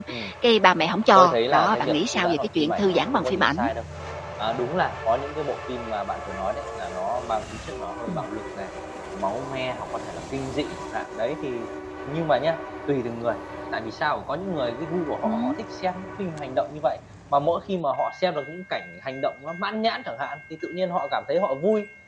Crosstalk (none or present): present